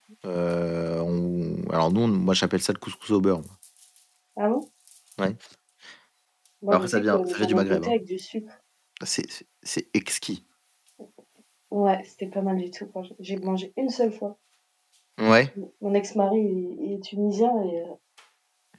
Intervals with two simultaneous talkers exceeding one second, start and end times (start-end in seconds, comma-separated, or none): 6.7-7.9